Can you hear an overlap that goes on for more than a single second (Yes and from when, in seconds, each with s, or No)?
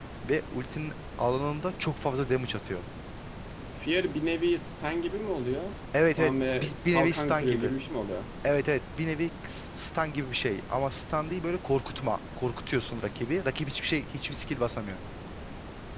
Yes, from 5.9 s